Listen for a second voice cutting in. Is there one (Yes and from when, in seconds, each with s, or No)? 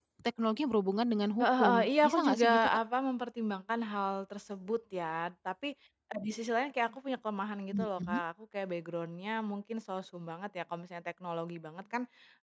Yes, from 1.4 s